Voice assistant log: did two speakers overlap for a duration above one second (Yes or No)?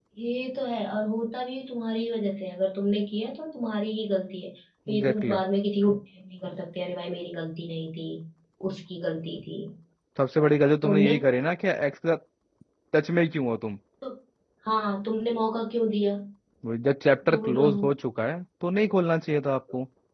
No